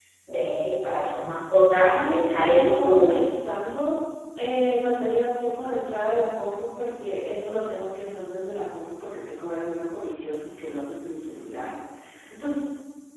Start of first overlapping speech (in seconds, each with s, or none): 1.9 s